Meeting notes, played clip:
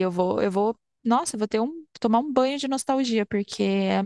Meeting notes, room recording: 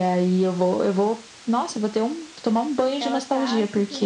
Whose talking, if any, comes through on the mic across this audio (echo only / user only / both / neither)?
both